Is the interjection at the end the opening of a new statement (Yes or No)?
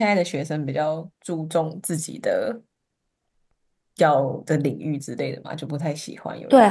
Yes